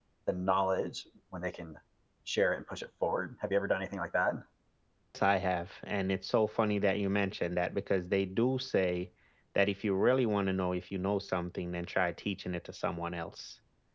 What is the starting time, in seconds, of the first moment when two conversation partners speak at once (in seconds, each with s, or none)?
none